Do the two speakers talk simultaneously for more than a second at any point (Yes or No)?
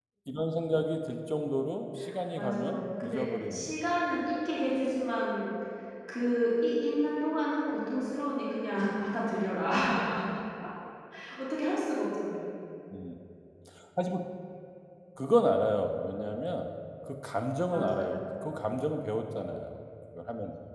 Yes